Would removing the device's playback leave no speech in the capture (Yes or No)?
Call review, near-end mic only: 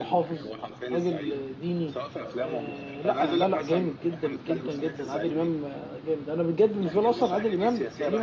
No